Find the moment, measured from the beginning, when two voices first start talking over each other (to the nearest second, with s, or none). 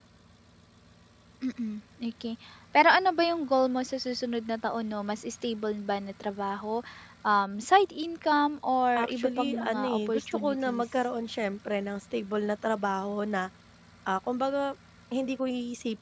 9 s